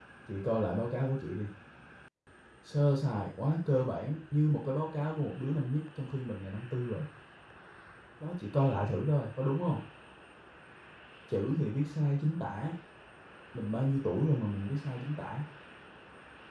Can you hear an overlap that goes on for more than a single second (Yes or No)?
No